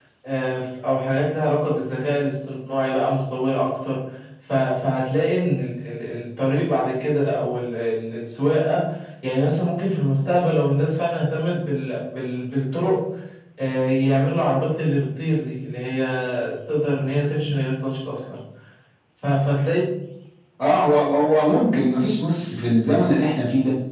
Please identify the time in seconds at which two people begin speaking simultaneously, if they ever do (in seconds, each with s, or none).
none